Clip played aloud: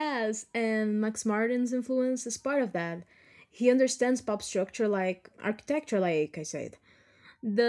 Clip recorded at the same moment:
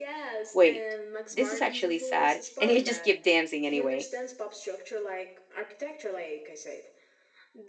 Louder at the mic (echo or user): user